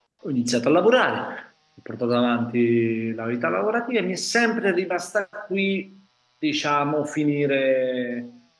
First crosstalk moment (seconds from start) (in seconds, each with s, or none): none